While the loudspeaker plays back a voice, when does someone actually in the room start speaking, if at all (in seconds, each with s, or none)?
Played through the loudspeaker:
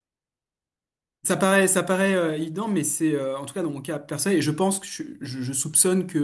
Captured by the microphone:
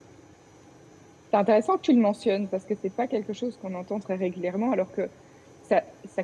1.3 s